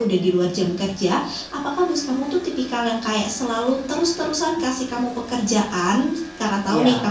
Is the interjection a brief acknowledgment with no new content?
Yes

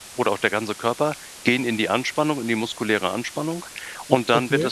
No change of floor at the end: Yes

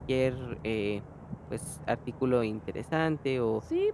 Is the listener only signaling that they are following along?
No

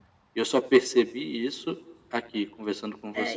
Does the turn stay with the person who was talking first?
No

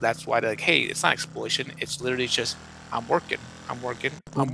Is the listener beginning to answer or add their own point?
Yes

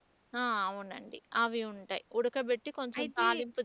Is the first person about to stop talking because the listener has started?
No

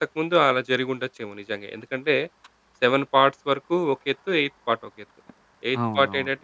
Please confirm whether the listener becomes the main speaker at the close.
No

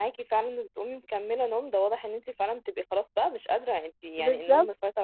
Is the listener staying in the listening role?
Yes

